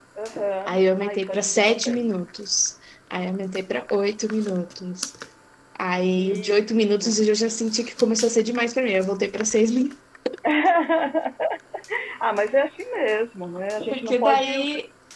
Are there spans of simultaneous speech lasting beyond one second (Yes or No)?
Yes